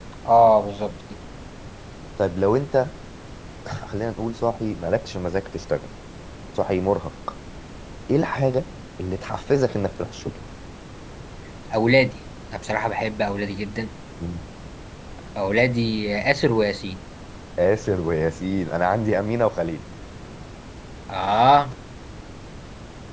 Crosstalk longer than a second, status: none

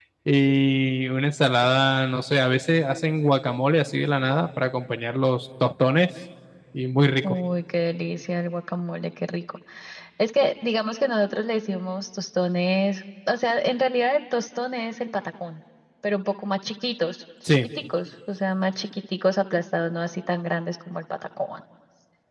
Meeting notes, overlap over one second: none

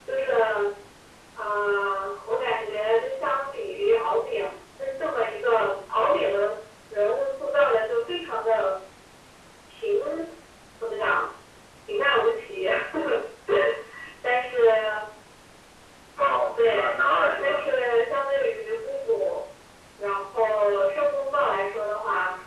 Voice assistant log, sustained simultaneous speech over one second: none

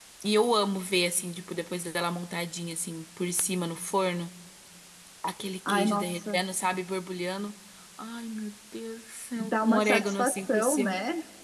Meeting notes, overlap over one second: present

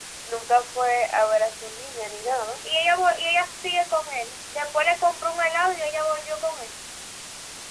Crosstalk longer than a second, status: none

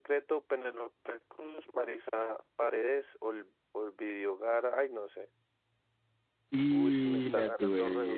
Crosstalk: present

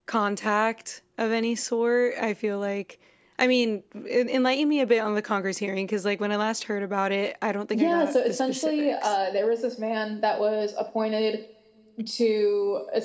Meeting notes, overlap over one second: present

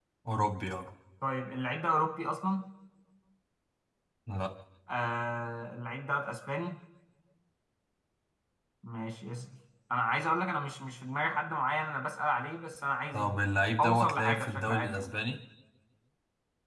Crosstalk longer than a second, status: present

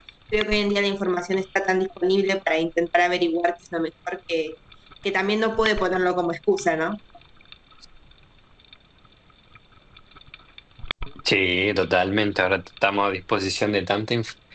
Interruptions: none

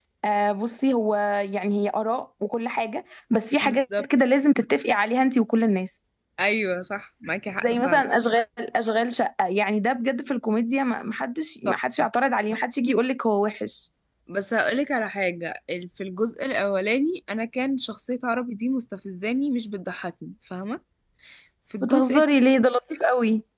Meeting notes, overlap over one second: none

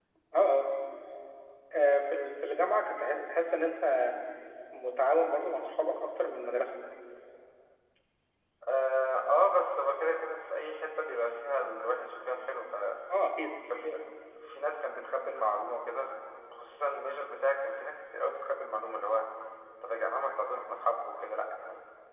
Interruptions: none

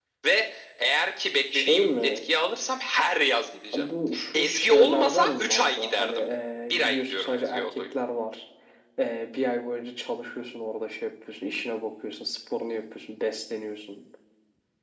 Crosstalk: present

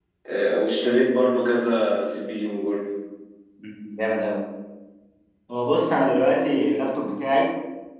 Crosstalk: none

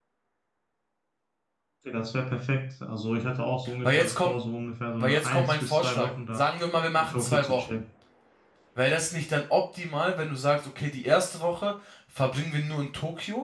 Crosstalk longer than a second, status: present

